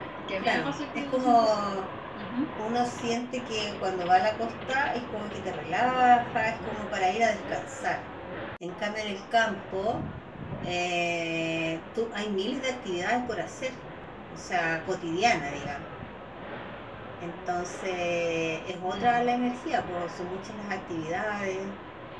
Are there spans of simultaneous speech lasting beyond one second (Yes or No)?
Yes